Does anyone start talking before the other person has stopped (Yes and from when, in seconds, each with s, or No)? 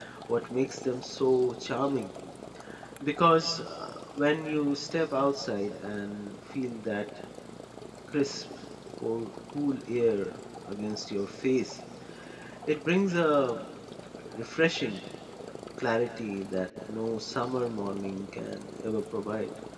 No